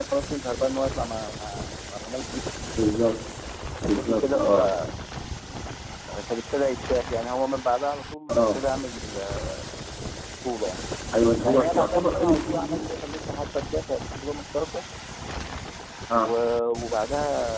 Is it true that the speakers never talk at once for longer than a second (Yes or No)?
No